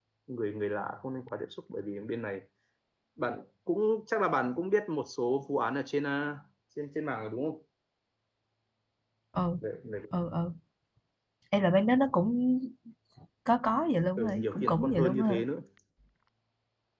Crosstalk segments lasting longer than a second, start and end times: 14.2-15.4

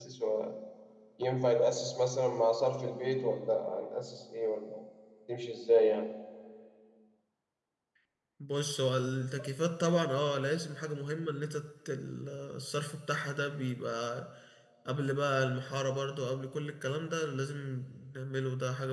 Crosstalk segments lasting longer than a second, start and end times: none

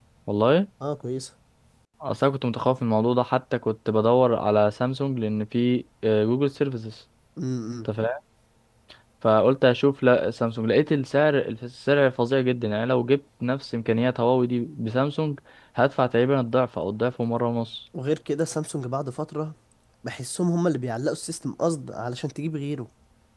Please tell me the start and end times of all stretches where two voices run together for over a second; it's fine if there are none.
none

